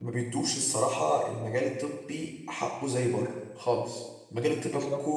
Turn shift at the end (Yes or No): No